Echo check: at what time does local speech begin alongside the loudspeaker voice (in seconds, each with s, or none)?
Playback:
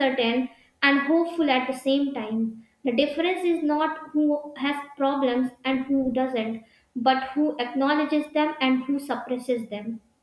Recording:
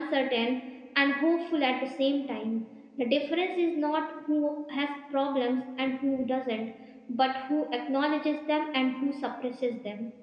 none